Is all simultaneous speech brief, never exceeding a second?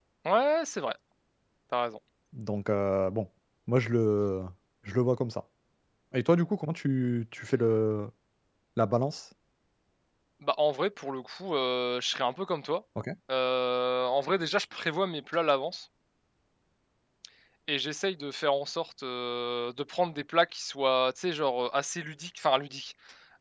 Yes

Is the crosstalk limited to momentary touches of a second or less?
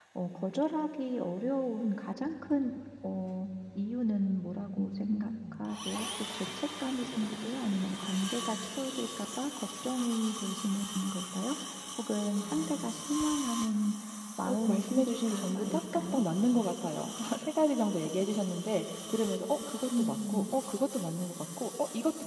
No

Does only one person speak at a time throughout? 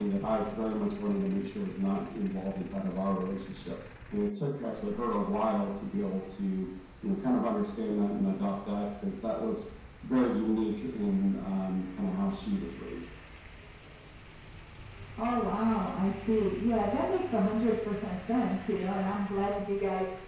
Yes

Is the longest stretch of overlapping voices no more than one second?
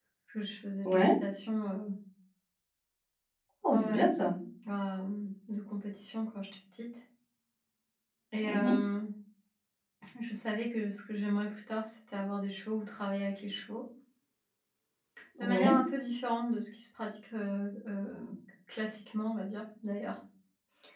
Yes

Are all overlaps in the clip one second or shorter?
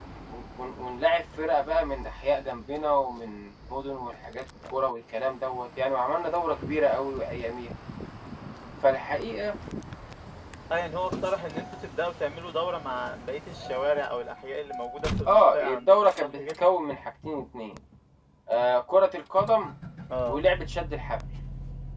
No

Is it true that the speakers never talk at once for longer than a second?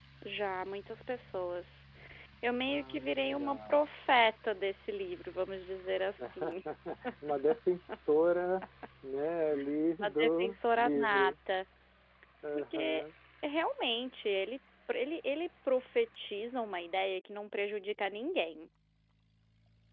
No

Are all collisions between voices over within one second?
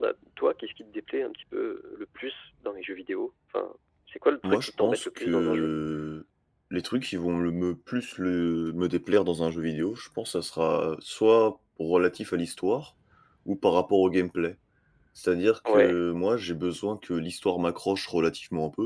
No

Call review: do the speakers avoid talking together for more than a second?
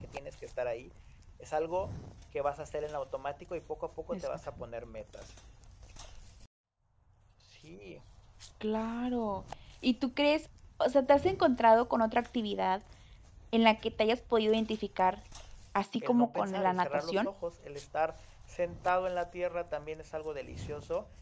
No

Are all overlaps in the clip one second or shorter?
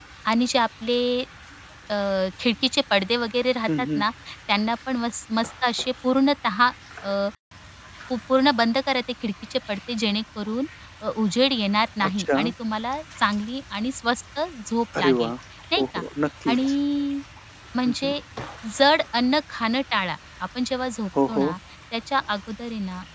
Yes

